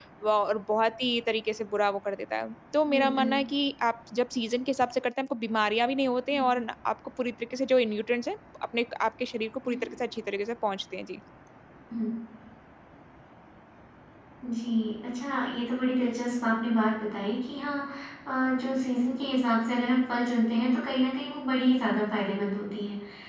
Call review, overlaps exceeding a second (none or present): none